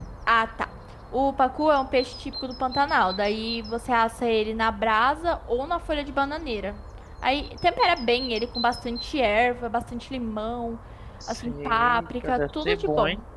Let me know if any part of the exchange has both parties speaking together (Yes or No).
Yes